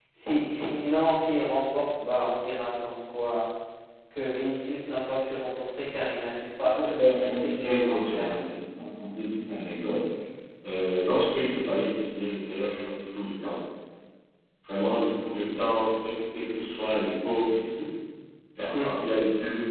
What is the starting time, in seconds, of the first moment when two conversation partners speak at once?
6.6 s

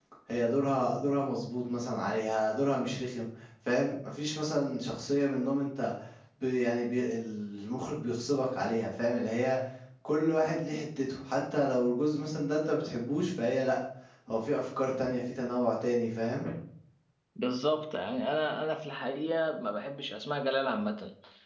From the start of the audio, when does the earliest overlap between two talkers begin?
none

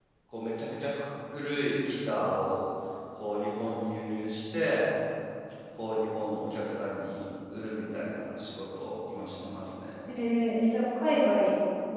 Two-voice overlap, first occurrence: none

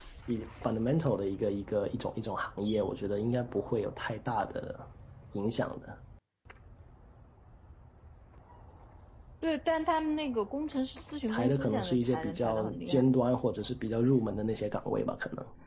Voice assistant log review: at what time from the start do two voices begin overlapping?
11.3 s

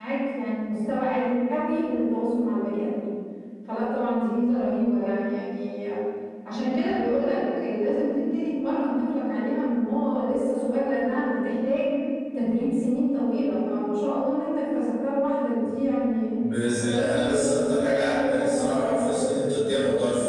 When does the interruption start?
16.8 s

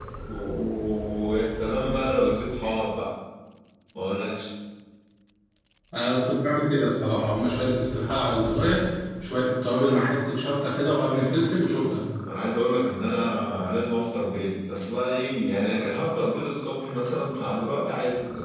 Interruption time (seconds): none

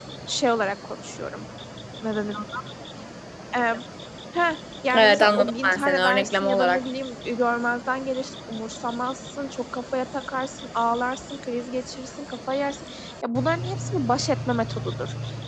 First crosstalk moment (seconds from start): 4.9 s

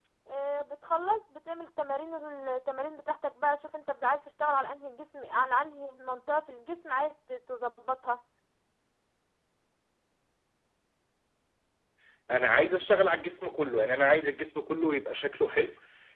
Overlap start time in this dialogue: none

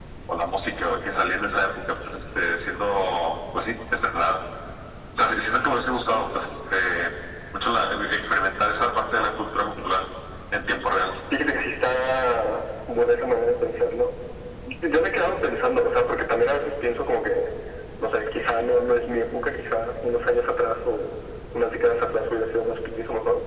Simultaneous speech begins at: none

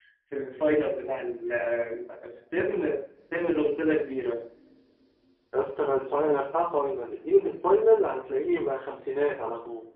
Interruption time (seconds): none

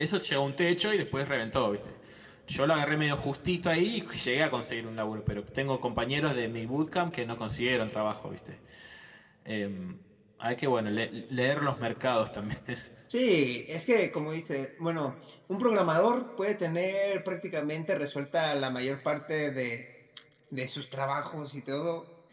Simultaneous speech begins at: none

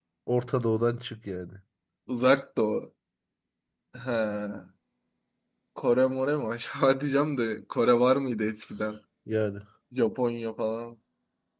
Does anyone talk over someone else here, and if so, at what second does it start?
none

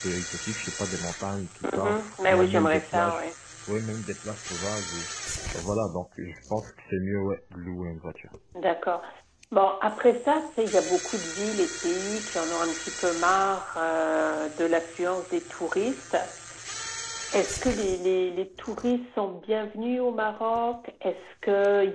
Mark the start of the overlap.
1.6 s

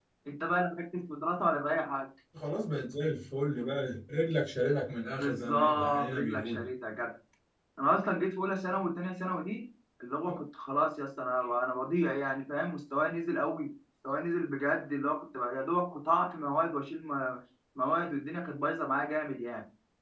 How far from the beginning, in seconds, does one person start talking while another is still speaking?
5.2 s

